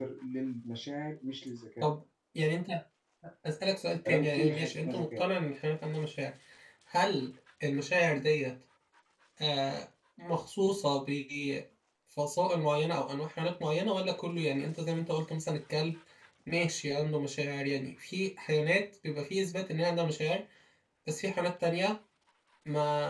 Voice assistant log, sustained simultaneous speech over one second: present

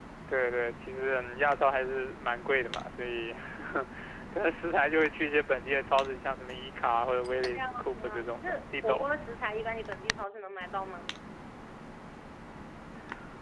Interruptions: present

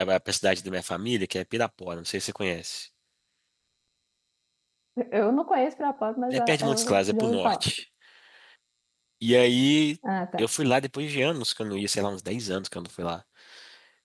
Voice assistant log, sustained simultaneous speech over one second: present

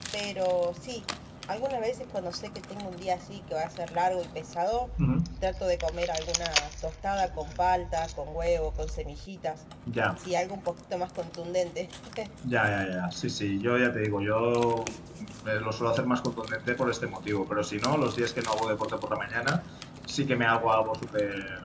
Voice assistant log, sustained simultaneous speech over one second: none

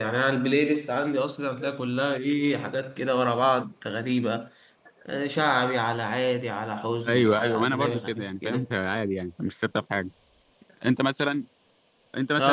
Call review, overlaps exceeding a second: present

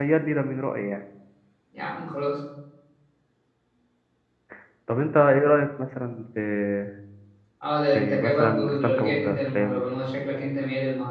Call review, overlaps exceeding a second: present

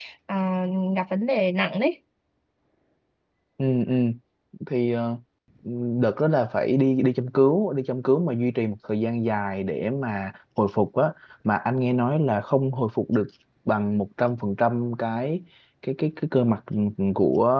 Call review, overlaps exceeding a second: none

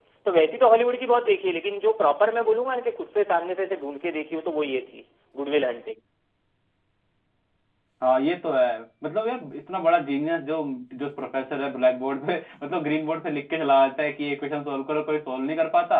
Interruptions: none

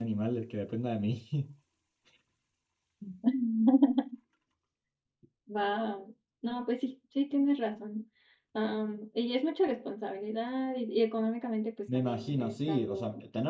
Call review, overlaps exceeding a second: present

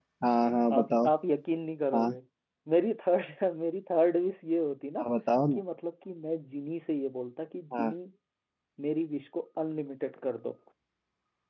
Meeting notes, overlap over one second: none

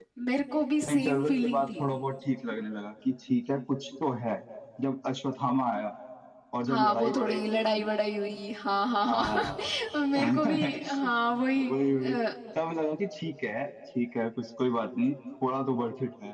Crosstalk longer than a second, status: present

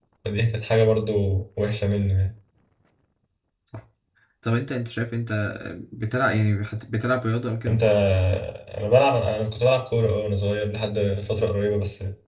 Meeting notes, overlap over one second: none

